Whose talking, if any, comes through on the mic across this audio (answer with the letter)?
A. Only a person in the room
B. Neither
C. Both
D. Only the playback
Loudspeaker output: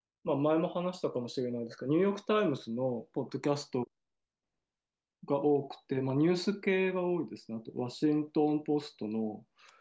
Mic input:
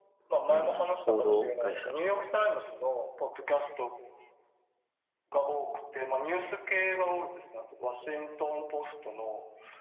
C